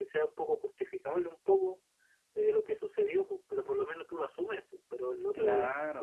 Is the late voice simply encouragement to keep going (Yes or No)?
No